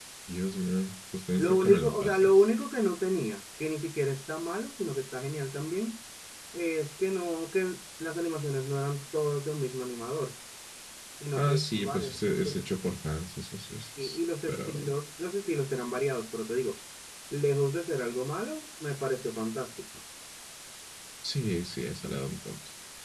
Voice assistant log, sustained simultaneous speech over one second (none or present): present